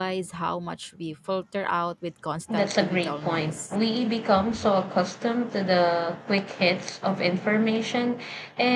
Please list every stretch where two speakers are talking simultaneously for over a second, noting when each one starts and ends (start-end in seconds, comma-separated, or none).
2.5-3.8